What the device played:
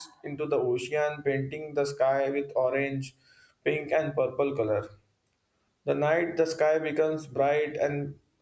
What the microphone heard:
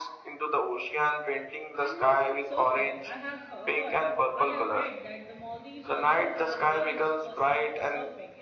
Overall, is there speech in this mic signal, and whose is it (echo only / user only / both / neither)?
both